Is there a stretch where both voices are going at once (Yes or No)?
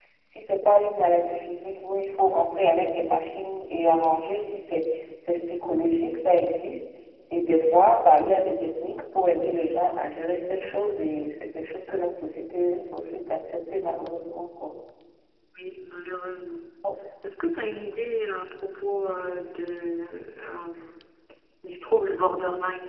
No